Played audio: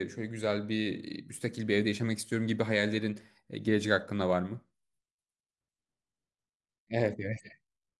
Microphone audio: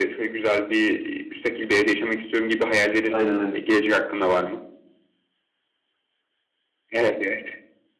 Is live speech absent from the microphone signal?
No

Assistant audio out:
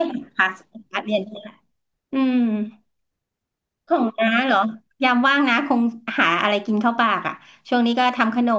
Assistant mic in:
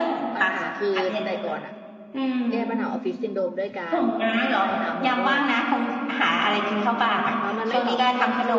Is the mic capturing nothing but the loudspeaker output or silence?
No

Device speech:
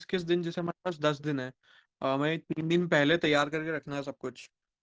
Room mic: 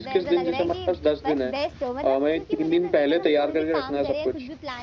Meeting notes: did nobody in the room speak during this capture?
No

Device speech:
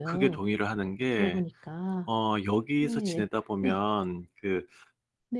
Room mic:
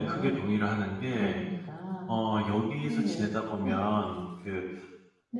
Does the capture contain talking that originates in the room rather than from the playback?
No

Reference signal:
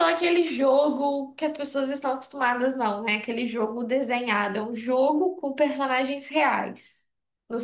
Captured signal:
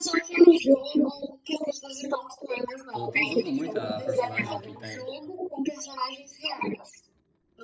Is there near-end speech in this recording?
Yes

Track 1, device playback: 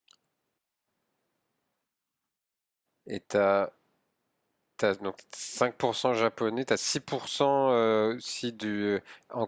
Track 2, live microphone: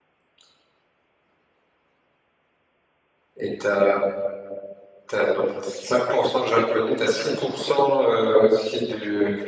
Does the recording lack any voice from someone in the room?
Yes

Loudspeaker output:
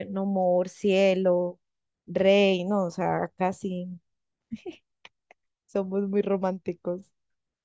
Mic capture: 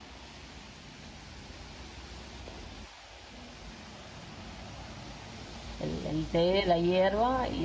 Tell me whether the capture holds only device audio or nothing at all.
No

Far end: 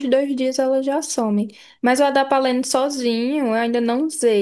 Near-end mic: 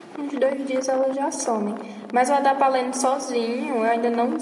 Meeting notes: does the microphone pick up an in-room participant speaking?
No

